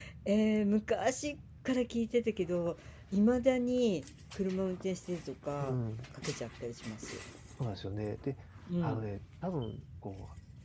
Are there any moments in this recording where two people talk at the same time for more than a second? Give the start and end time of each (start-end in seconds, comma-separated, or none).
none